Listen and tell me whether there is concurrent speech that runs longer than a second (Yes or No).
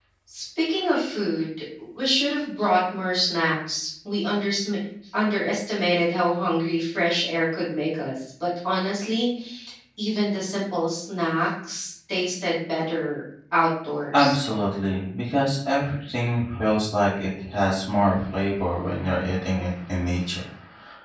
No